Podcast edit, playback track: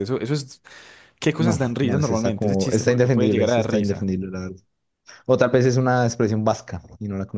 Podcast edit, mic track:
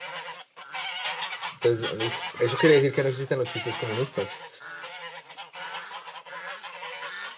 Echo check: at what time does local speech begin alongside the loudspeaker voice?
1.5 s

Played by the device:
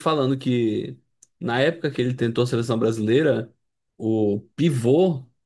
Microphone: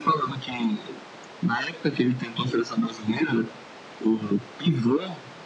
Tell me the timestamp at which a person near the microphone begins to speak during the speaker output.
none

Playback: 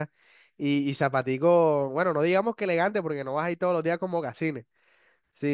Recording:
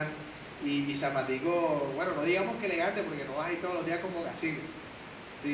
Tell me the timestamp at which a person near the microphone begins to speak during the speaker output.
none

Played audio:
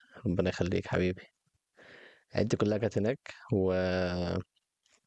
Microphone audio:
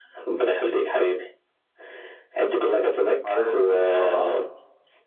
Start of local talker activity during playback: 3.2 s

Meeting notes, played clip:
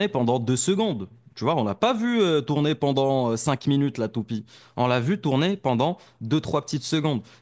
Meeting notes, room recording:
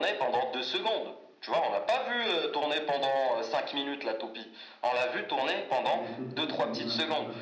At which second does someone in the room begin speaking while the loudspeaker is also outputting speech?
5.8 s

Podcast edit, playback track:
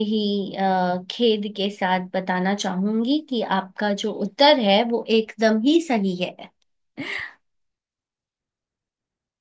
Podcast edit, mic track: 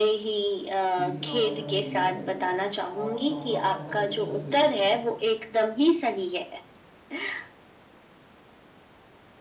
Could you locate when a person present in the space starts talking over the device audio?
1.0 s

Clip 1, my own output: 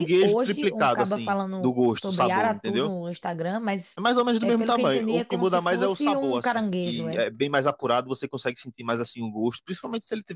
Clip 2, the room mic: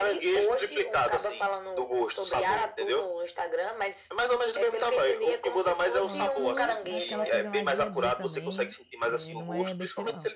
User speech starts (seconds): 6.0 s

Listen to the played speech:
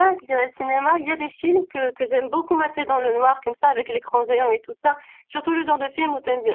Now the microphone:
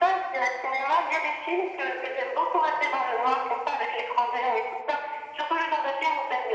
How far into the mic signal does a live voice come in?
none

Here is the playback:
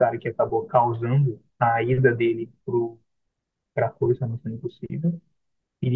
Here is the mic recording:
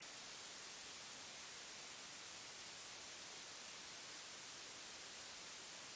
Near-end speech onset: none

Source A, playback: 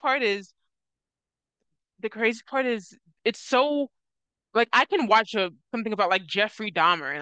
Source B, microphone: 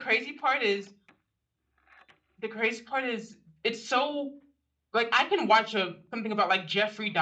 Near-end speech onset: none

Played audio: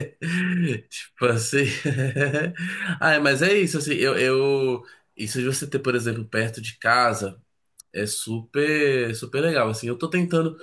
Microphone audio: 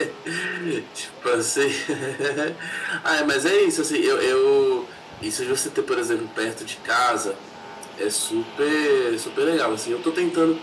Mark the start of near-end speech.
none

